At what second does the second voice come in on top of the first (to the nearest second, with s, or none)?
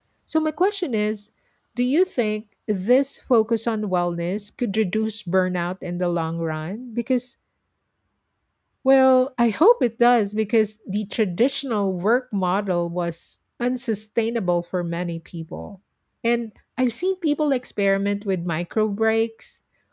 none